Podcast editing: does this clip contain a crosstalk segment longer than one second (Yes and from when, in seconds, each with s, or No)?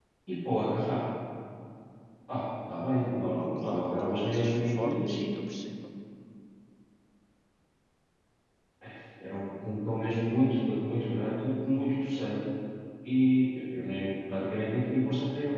Yes, from 3.4 s